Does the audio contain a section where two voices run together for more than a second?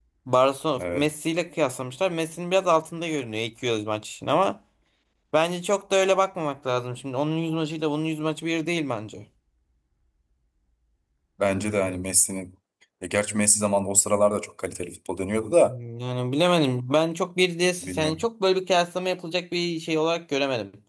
No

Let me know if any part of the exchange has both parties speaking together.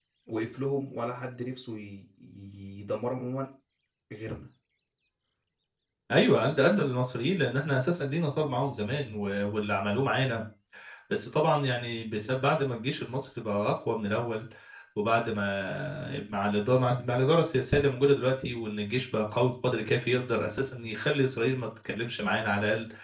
No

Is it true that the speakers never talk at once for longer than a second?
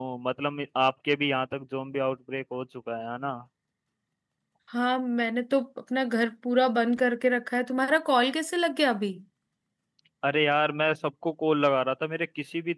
Yes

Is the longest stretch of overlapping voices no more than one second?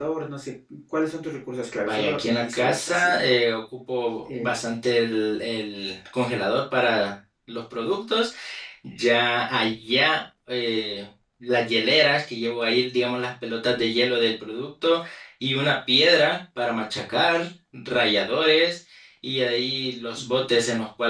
No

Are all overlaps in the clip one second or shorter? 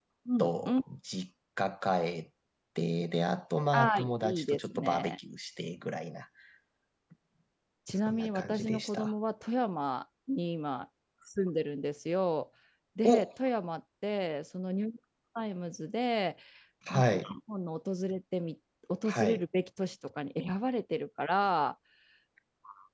No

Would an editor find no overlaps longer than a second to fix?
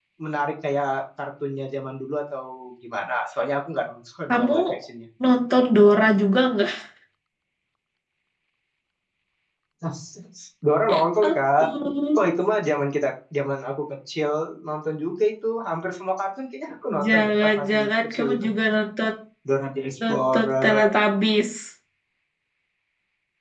No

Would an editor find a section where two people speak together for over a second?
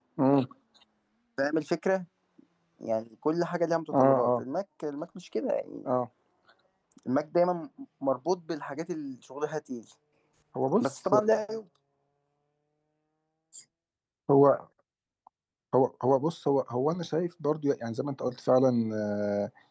No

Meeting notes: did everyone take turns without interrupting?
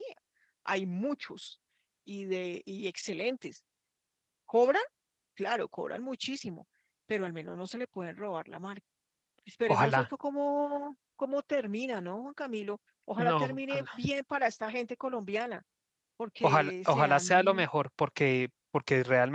No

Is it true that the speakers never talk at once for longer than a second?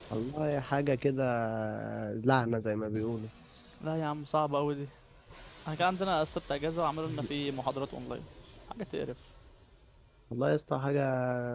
Yes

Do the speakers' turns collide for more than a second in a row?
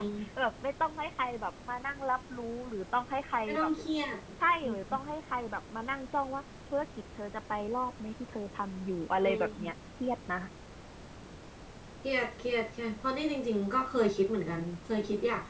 No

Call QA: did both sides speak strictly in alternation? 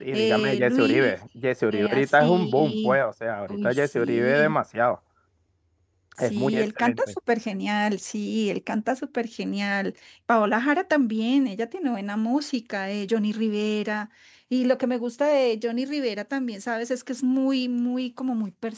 No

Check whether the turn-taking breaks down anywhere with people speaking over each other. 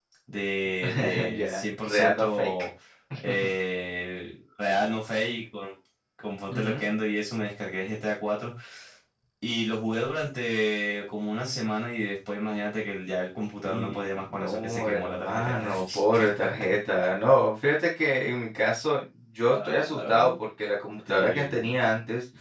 Yes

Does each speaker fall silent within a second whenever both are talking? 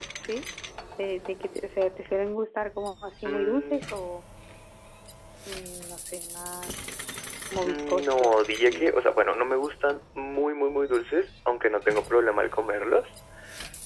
No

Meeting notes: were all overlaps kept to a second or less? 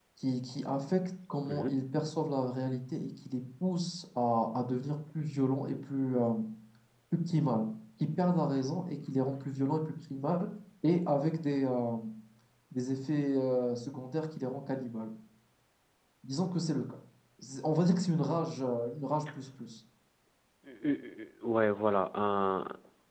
Yes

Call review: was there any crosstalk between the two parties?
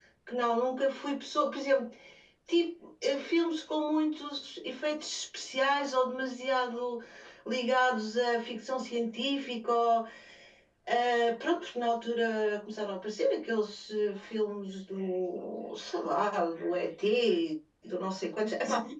No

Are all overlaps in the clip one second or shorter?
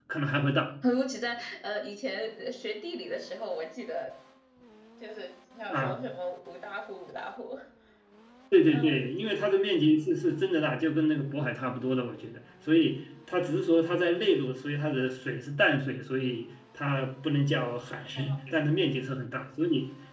Yes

